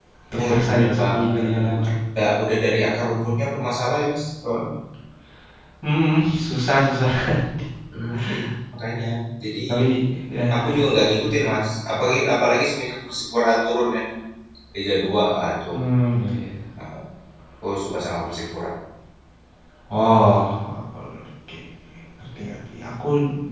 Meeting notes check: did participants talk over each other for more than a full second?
Yes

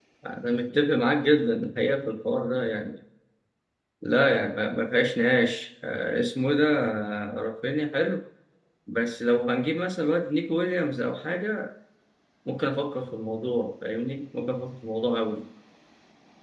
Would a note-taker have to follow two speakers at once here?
No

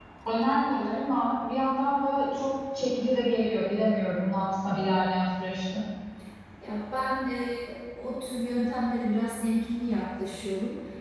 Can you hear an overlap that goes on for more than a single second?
No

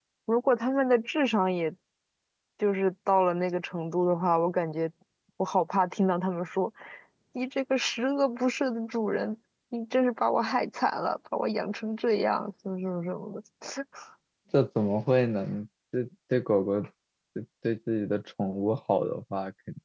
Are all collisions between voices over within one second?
Yes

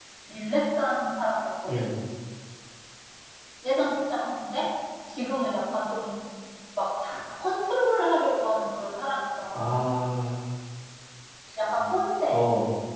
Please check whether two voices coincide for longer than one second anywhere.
No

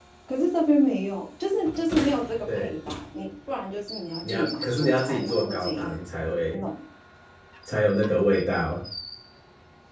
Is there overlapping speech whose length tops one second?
Yes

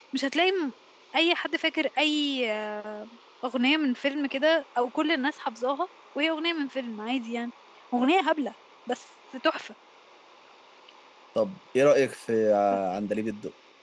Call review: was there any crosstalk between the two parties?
No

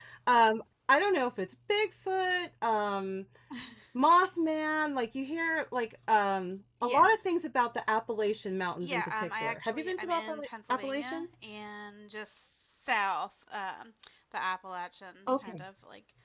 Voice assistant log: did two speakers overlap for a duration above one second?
Yes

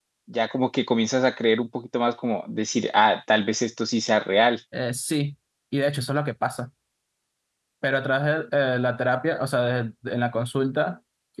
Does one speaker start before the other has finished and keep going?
No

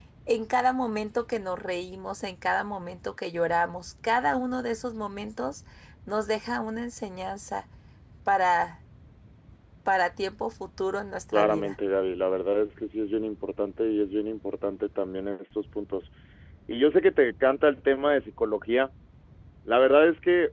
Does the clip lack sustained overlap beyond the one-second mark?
Yes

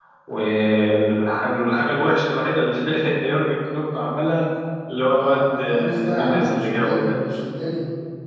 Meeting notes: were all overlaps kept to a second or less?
No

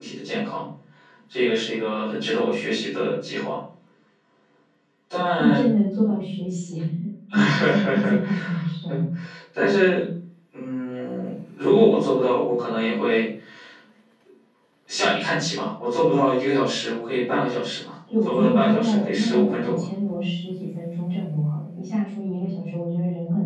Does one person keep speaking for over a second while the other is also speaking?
Yes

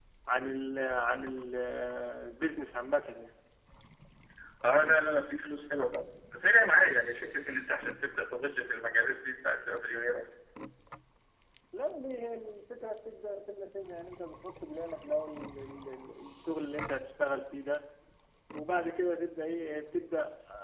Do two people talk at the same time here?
No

